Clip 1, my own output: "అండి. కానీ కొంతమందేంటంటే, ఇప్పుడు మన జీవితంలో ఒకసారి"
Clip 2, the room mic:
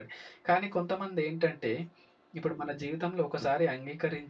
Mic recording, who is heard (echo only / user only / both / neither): echo only